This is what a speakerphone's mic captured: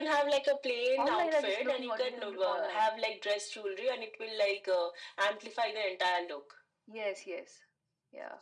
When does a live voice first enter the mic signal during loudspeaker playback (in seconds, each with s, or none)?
none